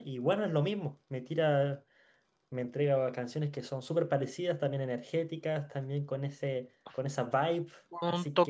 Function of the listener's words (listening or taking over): taking over